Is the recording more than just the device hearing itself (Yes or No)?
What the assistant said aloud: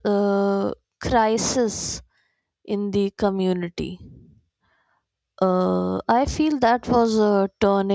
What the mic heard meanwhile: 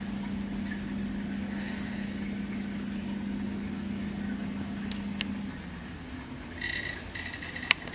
No